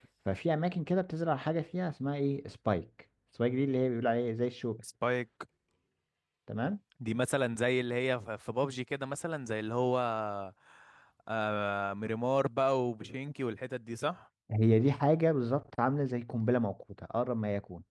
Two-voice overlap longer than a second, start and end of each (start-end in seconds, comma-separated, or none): none